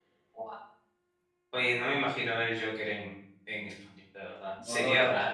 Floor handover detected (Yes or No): Yes